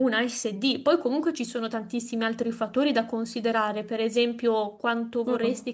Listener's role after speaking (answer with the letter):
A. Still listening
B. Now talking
A